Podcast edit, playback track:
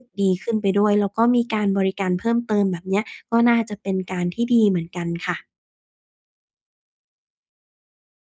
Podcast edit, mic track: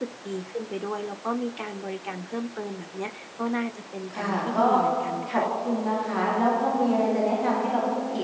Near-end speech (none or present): present